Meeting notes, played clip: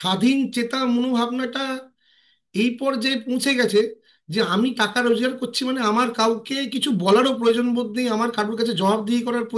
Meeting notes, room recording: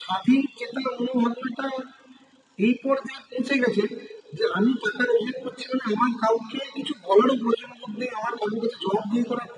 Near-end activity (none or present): none